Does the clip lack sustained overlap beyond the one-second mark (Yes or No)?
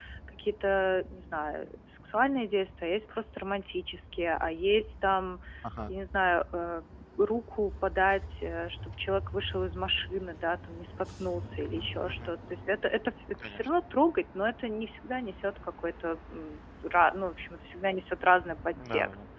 Yes